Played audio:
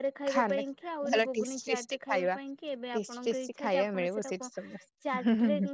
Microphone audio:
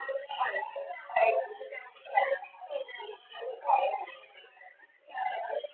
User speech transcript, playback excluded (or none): none